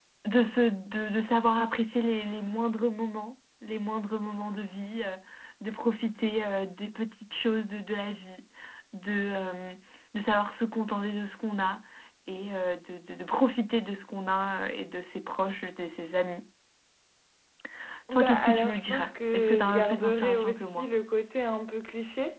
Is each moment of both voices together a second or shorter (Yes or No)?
No